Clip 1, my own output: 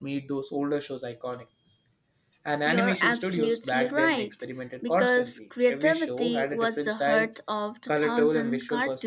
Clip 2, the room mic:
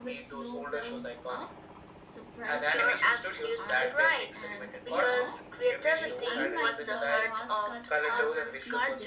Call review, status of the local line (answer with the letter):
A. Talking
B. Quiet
A